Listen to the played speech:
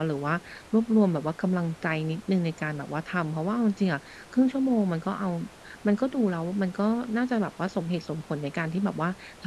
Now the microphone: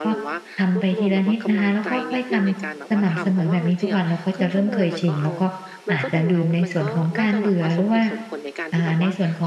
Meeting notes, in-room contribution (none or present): present